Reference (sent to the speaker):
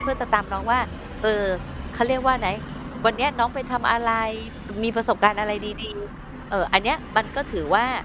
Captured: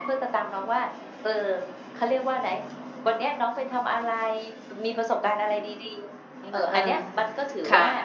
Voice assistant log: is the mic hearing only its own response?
No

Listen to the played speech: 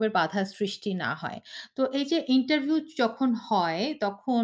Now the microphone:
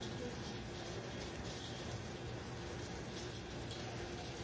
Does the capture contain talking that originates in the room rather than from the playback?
No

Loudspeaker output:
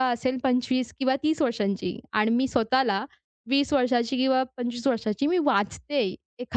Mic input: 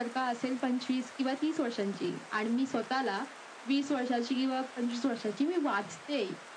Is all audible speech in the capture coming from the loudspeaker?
Yes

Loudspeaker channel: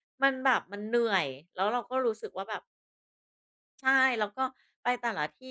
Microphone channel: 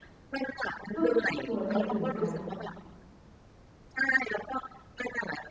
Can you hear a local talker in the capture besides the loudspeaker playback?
Yes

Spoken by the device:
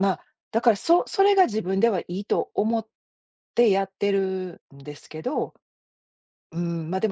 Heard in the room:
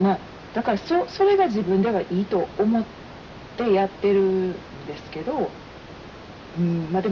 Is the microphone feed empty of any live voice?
Yes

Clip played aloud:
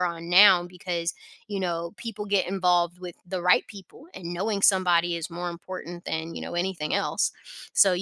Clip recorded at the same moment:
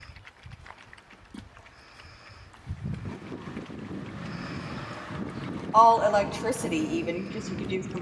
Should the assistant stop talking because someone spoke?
Yes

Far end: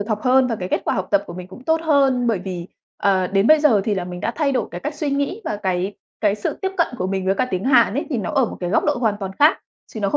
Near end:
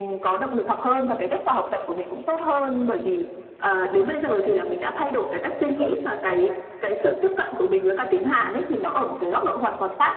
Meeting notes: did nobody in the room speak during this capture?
No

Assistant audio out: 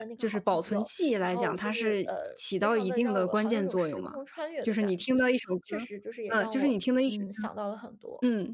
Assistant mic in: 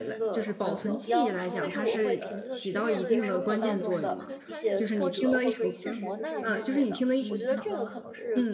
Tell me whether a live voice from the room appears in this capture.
Yes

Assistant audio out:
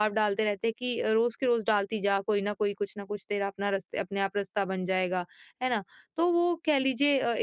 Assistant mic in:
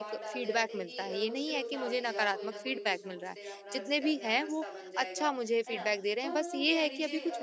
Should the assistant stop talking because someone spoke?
Yes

